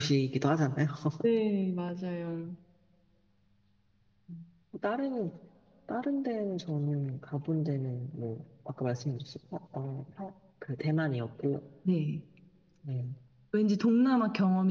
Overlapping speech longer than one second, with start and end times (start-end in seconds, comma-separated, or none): none